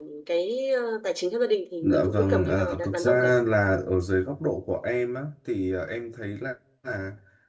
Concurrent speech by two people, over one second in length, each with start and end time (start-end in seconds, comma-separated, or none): 1.8-3.3